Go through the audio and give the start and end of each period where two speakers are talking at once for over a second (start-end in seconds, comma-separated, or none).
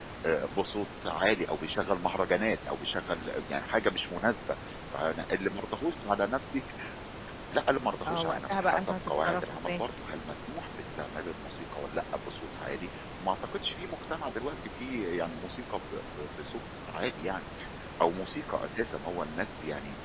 8.1-9.8